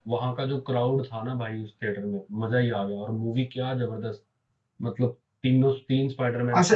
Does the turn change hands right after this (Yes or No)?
Yes